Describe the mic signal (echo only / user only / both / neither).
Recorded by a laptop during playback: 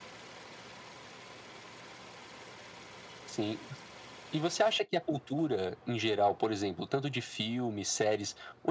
echo only